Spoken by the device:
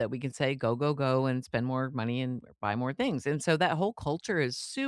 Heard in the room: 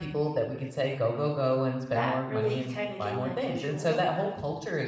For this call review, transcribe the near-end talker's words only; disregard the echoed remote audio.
that really kinda gave me a visual

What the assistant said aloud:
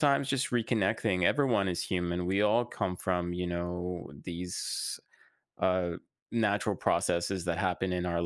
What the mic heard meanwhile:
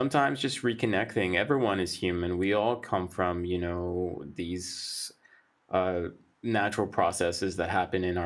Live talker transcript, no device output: none

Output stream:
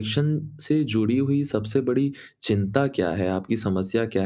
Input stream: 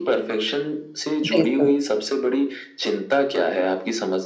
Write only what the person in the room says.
बिल्कुल।

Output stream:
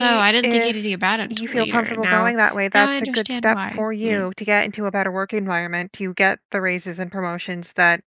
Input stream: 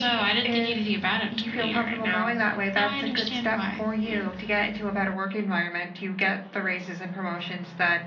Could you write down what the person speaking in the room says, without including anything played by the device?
none

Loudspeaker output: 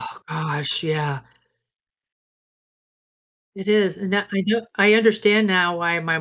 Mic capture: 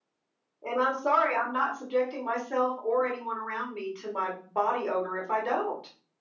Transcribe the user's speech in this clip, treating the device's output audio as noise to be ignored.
and I'm sorry, I'm not subjecting myself or anyone around me to my body odor if I don't.

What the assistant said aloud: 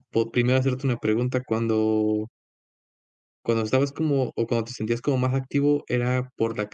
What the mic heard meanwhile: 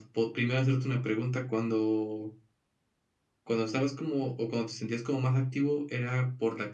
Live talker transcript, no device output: none

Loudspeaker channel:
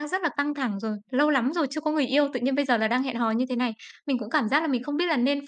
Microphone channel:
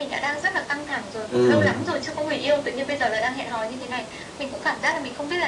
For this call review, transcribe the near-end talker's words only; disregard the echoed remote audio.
à,

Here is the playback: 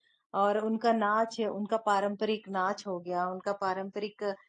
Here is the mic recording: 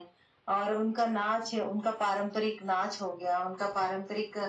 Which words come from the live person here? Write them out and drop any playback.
none

